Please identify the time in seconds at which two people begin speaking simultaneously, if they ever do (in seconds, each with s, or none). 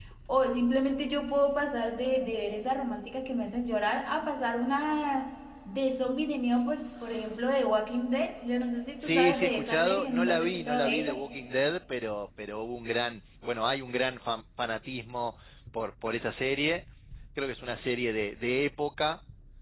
9.0 s